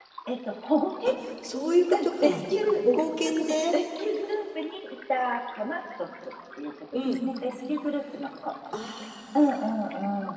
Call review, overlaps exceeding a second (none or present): none